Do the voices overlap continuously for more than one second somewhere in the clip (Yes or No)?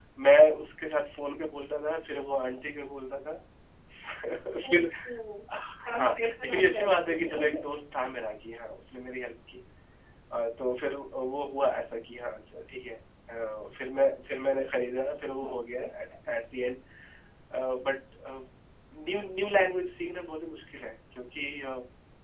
Yes